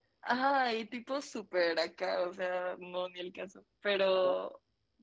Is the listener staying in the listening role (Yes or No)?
Yes